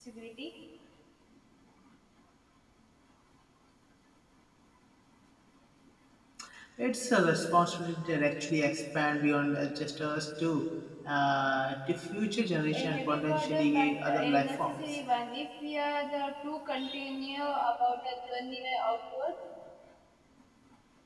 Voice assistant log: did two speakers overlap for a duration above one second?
Yes, from 12.7 s

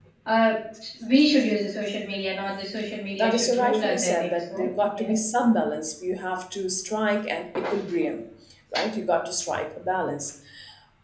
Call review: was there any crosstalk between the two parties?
Yes, from 3.2 s

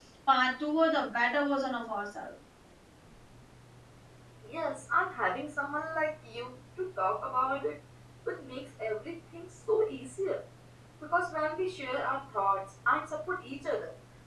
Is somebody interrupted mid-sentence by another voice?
No

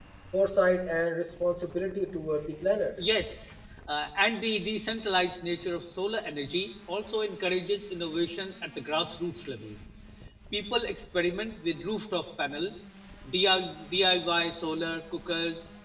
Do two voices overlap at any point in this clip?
No

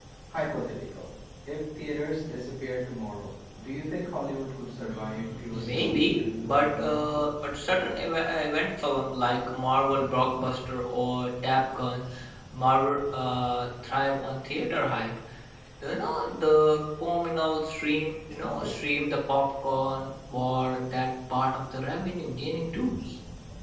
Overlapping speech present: Yes, from 4.9 s

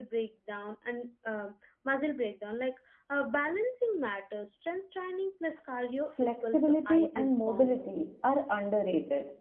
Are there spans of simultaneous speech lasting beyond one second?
Yes, from 6.2 s

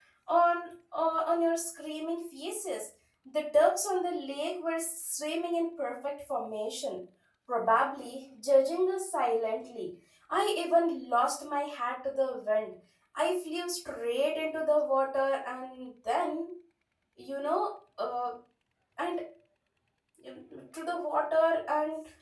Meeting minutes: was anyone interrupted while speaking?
No

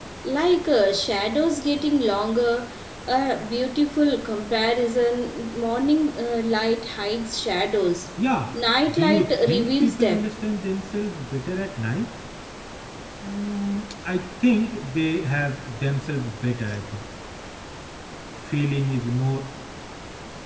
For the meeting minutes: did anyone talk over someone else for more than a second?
Yes, from 8.9 s

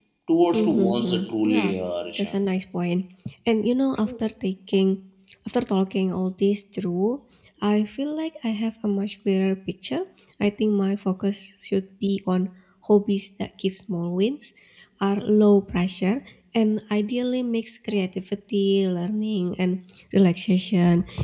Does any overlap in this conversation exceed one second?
Yes, from 0.5 s

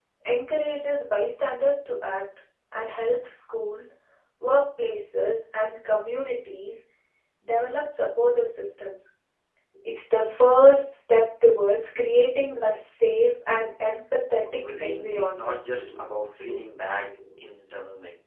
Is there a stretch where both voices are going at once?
Yes, from 14.5 s

